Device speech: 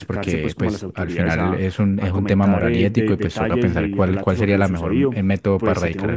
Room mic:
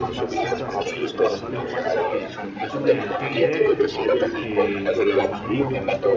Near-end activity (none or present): present